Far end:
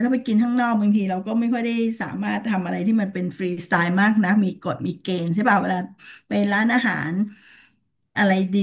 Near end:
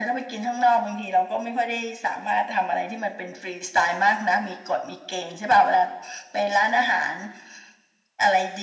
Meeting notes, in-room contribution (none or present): none